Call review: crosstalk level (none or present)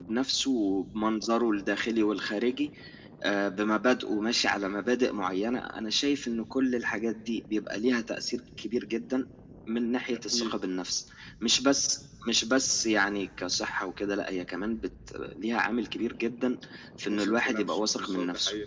present